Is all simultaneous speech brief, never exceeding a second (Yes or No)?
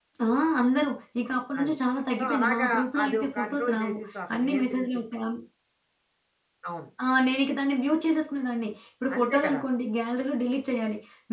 No